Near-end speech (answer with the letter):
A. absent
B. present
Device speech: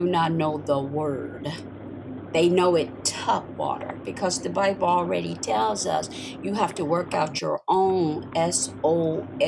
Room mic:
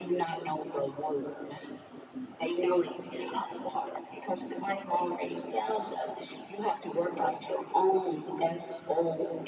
A